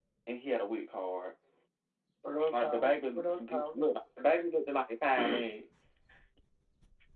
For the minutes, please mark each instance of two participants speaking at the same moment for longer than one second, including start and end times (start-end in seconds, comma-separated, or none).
2.5-3.8